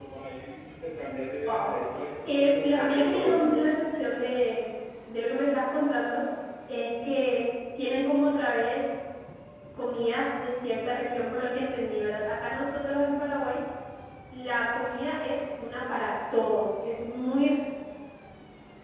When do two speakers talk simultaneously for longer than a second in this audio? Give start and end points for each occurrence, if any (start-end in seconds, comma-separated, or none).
2.2-3.7